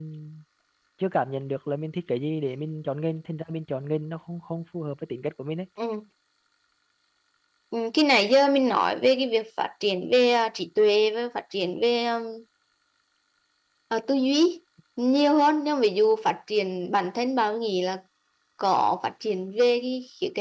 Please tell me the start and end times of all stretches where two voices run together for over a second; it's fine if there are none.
none

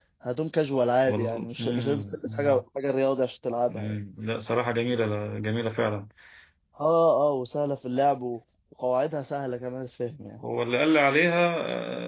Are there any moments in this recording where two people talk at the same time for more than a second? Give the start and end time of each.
1.1-2.6

